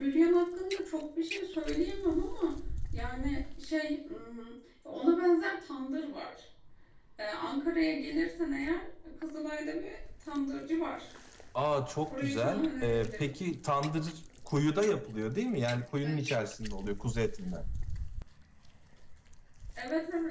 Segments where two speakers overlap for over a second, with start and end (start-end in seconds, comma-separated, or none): 12.1-13.3